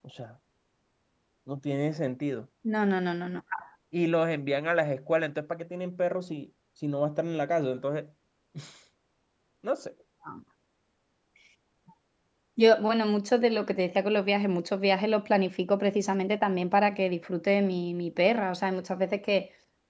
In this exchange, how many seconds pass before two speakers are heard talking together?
none

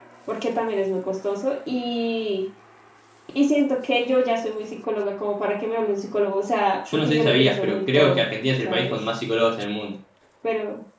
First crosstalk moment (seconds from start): 6.9 s

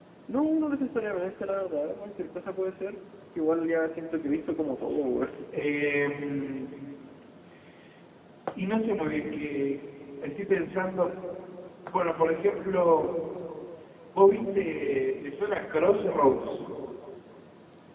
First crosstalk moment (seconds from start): none

